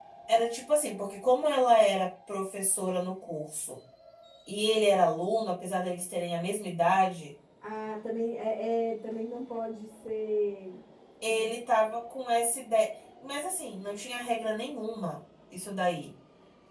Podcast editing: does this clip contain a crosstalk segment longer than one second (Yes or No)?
No